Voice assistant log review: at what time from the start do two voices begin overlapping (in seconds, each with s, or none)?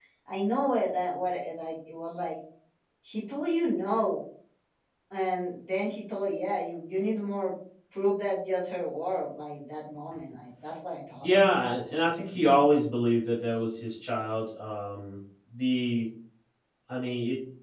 none